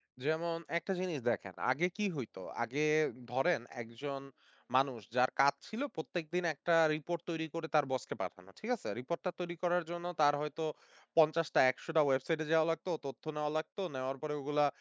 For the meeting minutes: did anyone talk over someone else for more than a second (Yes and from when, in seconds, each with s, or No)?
No